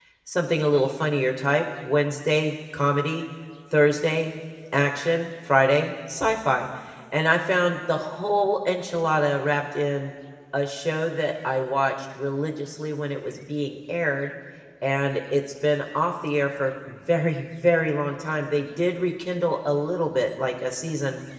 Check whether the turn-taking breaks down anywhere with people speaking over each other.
No

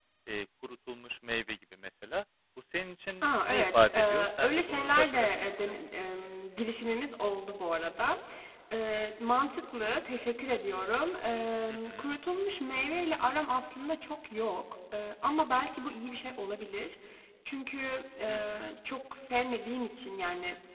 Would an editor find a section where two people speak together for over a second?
Yes, from 3.2 s

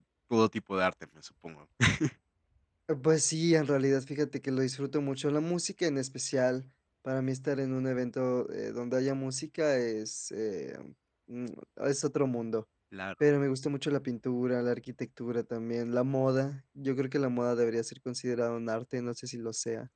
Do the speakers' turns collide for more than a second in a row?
No

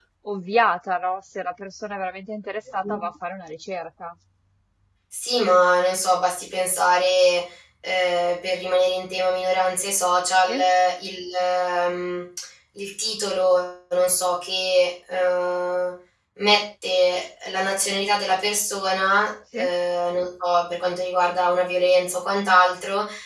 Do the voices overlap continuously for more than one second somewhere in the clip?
No

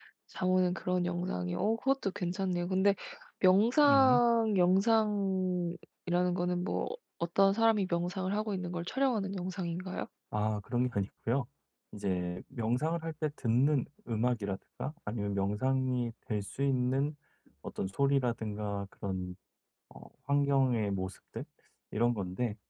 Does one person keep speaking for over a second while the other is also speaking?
No

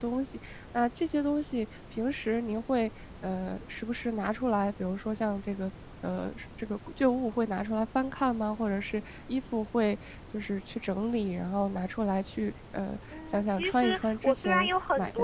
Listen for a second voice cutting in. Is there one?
Yes, from 13.1 s

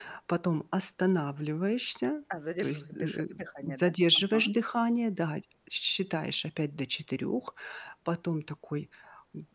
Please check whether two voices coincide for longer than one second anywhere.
Yes, from 2.6 s

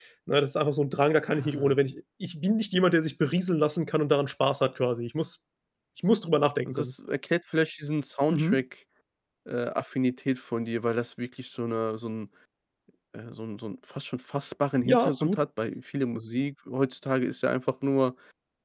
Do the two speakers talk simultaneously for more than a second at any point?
No

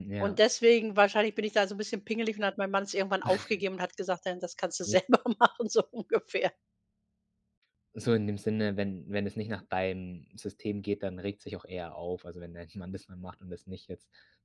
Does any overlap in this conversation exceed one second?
No

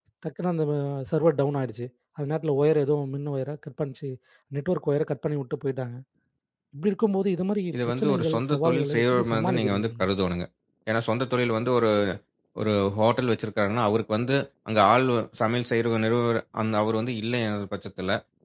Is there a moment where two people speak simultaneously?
Yes, from 7.7 s

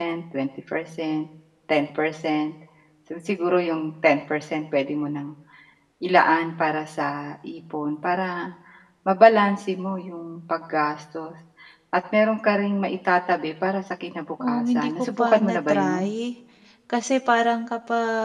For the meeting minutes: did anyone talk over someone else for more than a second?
Yes, from 14.4 s

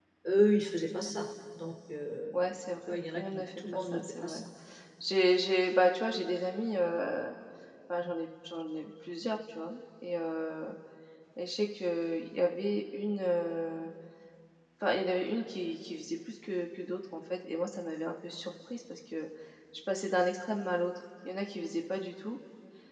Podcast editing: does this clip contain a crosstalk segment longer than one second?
Yes, from 2.9 s

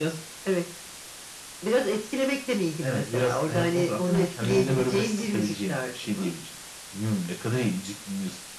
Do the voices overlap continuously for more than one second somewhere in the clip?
Yes, from 2.8 s

